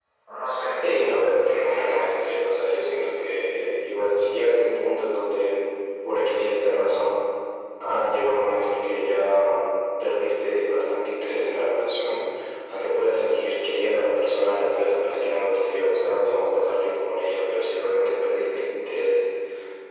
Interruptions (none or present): present